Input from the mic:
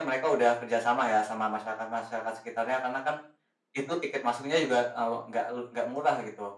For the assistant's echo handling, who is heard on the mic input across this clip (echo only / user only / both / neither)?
echo only